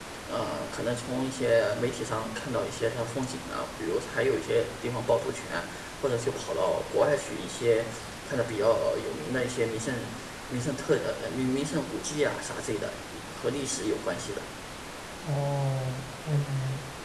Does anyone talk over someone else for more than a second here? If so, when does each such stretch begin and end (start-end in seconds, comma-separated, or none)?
none